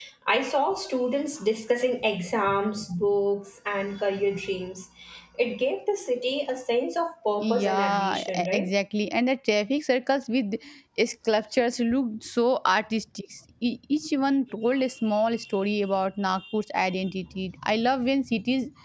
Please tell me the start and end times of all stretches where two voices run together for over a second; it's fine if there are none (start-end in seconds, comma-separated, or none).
7.4-8.7